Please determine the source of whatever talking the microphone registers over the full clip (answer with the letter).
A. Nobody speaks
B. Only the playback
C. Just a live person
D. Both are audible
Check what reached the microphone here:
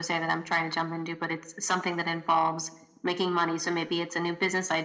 B